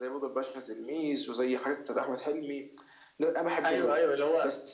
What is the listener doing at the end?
taking over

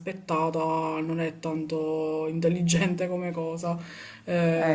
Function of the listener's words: listening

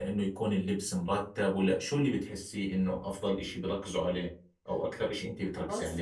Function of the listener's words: taking over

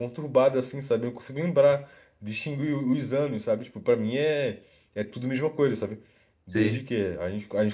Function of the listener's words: listening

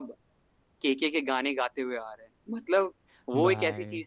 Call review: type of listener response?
listening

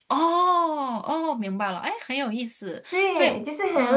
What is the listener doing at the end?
taking over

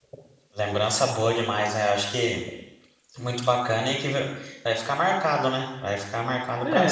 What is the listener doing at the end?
taking over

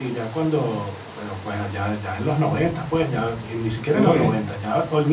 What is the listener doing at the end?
listening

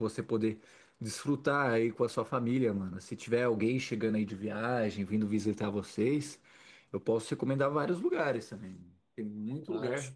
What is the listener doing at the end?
listening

